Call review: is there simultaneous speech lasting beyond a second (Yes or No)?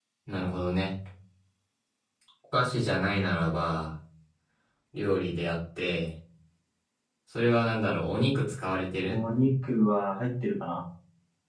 No